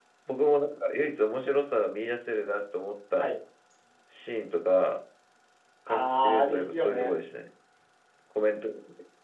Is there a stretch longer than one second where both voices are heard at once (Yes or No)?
Yes